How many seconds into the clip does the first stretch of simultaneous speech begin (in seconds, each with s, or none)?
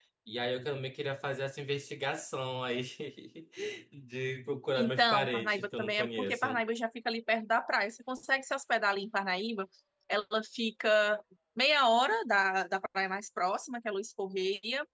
4.7 s